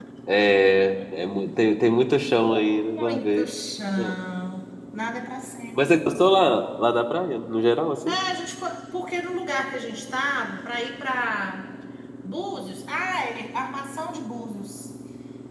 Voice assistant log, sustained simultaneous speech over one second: none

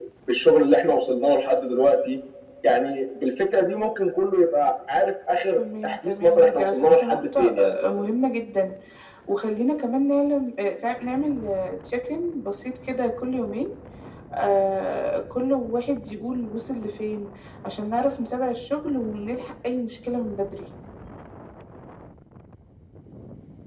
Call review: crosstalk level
present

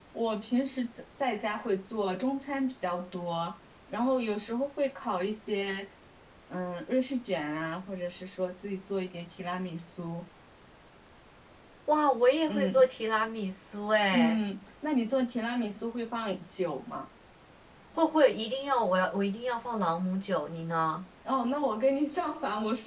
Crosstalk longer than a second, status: none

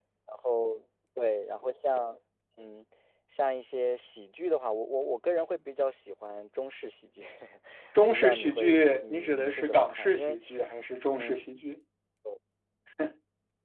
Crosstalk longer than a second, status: present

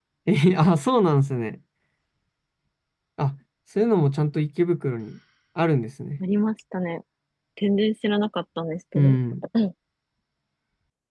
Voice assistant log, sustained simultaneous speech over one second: none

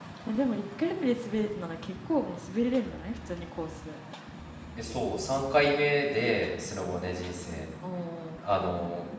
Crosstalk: none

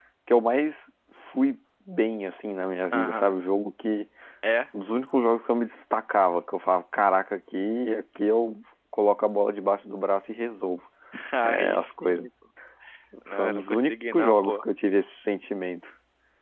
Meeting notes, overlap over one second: present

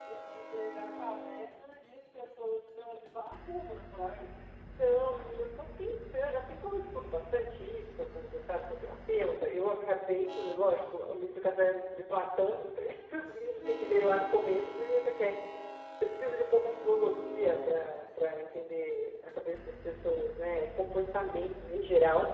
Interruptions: none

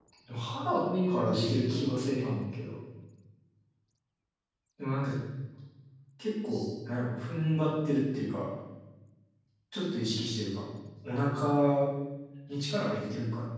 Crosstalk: present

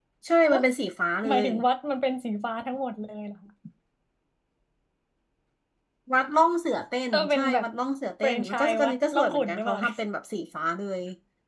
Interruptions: present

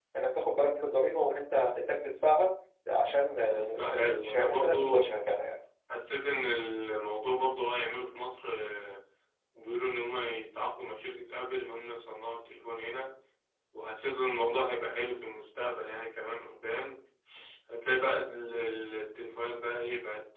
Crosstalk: present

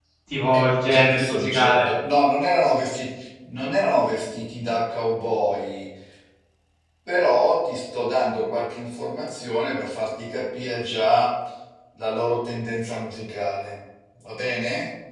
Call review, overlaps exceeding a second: present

